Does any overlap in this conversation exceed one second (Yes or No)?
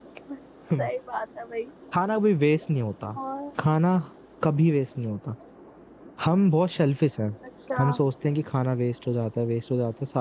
No